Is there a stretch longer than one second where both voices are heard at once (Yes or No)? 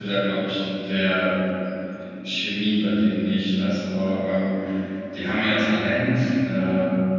No